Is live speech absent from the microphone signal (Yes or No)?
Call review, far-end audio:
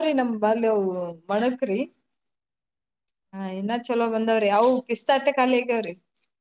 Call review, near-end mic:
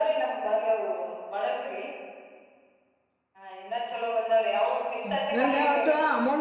No